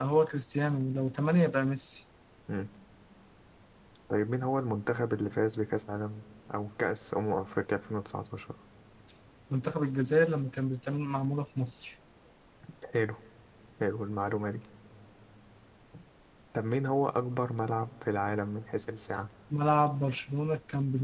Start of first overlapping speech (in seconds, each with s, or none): none